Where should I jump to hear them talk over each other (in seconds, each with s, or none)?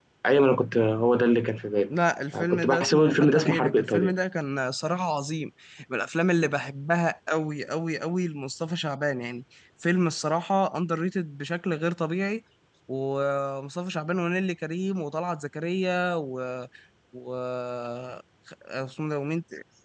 2.3 s